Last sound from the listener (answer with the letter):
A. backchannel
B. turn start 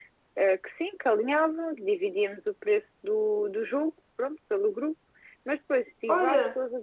A